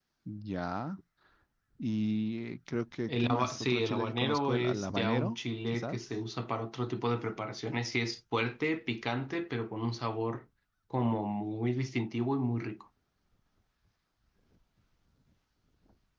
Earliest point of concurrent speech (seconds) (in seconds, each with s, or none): 3.1 s